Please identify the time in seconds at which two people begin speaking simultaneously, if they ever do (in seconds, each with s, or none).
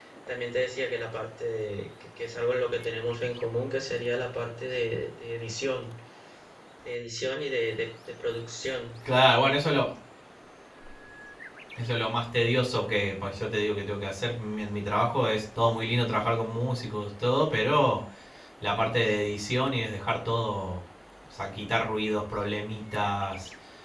none